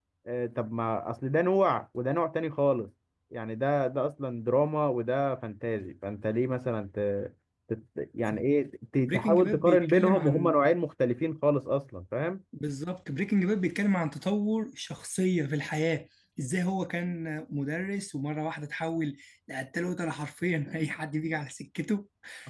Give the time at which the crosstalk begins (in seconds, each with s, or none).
9.0 s